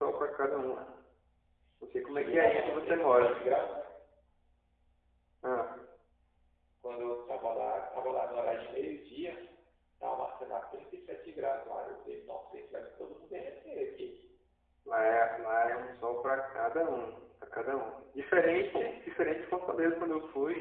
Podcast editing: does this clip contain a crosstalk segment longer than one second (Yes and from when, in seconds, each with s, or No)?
Yes, from 2.1 s